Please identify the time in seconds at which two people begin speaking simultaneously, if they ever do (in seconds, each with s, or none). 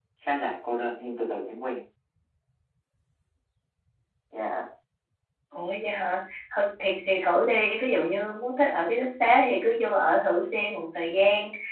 none